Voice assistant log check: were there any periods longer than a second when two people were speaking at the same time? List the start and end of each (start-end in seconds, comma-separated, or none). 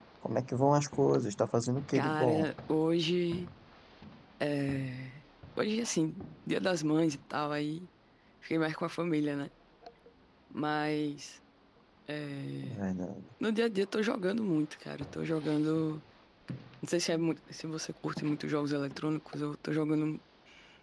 none